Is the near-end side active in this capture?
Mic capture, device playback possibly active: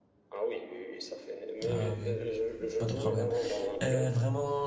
Yes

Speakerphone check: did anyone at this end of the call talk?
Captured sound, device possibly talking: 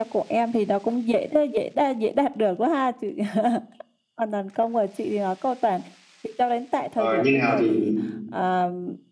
Yes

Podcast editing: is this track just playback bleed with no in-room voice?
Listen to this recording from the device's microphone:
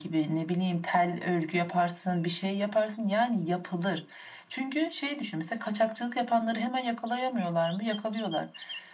Yes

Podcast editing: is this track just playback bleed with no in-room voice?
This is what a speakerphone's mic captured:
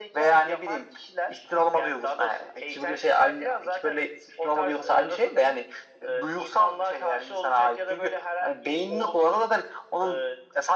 Yes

